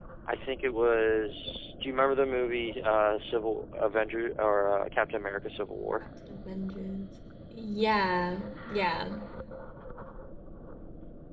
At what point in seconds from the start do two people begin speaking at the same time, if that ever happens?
none

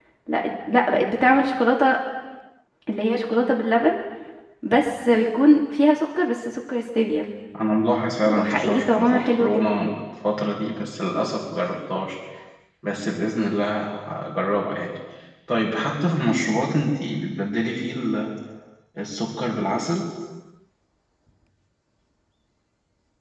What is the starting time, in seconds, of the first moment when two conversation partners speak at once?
8.2 s

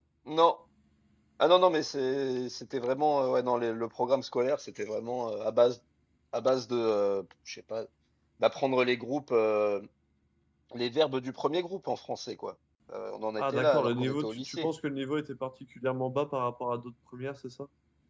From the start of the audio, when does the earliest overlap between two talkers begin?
13.4 s

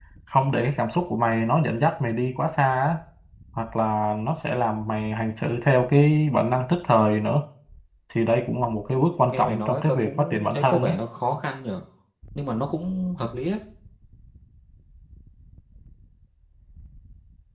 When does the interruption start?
9.3 s

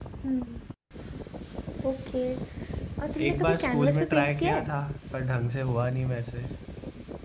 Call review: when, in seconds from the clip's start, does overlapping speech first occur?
3.3 s

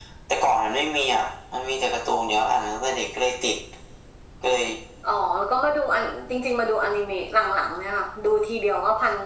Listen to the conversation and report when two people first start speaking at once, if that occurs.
none

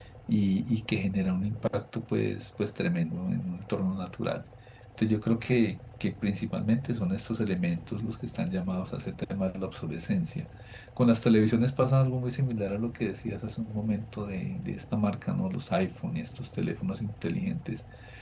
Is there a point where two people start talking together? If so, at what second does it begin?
none

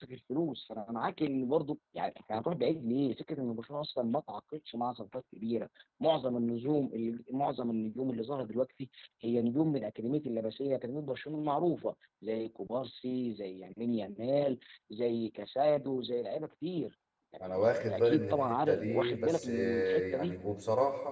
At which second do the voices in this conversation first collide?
17.4 s

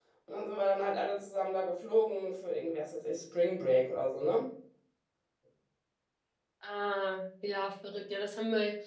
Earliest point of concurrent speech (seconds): none

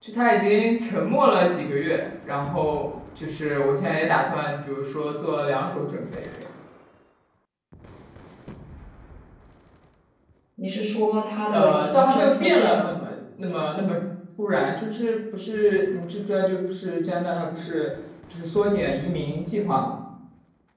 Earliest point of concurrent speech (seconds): 11.5 s

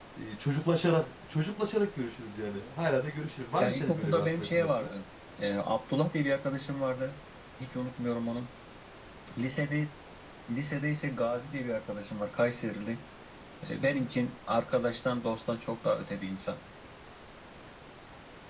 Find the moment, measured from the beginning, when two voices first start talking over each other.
3.6 s

